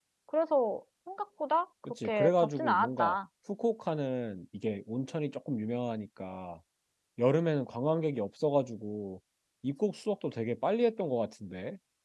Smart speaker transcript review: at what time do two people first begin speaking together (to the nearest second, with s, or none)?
2 s